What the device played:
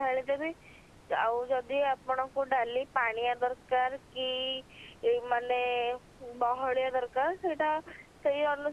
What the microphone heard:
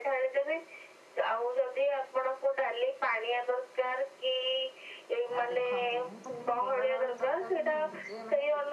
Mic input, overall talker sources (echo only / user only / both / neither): both